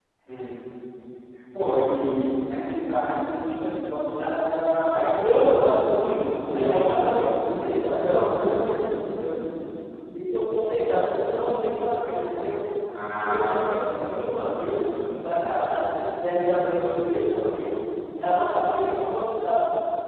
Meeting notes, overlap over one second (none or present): present